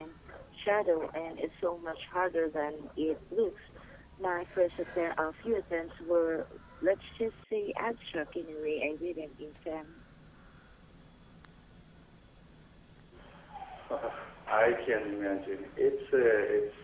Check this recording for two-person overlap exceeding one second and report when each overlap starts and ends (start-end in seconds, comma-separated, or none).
none